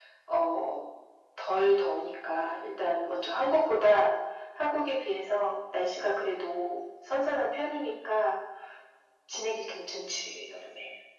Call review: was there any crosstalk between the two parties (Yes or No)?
No